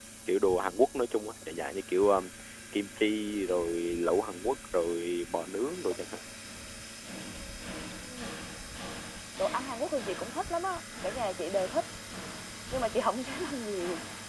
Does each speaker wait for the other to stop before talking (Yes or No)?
Yes